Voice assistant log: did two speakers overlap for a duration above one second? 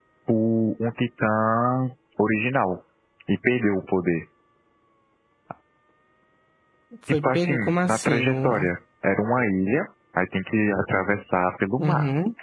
Yes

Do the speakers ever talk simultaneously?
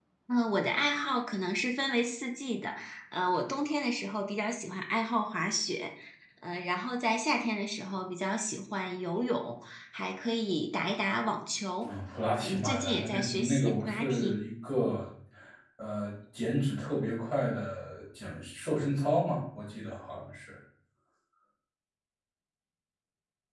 Yes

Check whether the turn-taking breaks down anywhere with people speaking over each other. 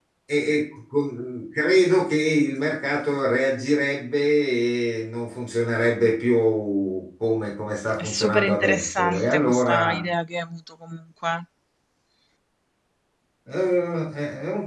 Yes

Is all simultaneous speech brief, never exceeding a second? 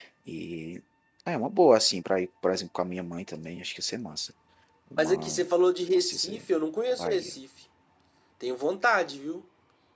Yes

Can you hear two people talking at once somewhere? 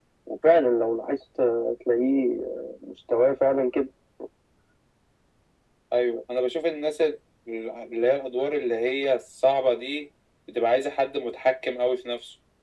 No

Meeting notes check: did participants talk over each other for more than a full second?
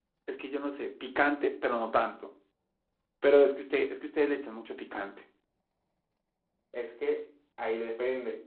No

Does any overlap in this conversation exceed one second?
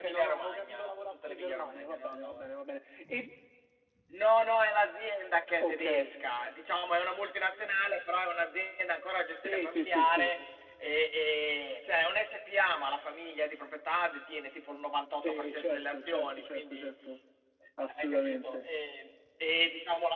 Yes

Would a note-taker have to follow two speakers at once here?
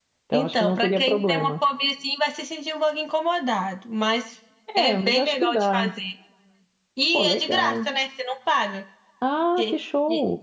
Yes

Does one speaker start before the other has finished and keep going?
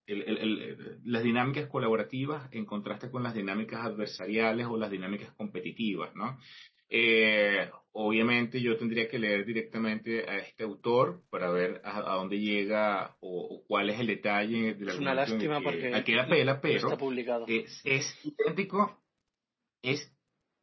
Yes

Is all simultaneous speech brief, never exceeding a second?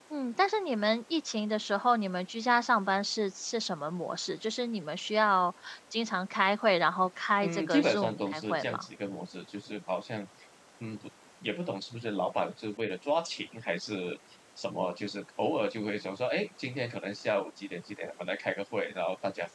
No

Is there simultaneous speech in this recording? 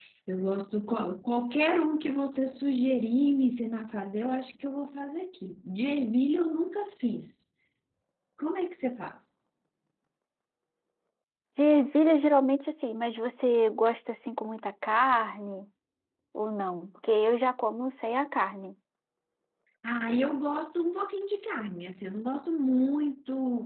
No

